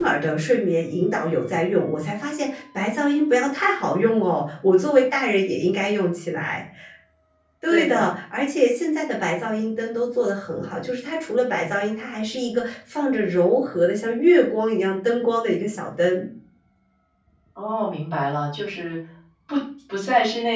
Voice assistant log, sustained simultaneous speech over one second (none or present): none